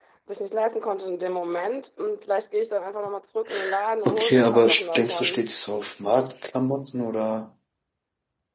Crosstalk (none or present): present